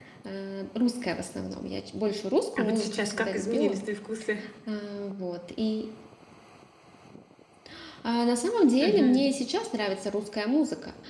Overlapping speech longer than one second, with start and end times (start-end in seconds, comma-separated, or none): 2.6-3.8